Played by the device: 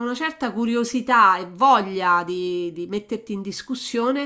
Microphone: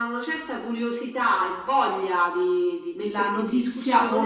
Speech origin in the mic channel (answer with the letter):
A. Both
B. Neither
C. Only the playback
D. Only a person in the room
A